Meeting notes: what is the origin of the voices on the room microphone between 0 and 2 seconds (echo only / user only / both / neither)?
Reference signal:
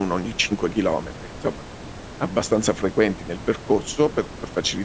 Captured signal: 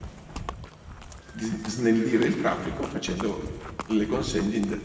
user only